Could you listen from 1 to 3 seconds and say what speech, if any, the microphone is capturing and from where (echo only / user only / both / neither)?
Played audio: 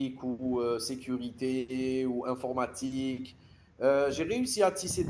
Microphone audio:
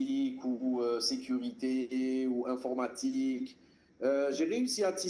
echo only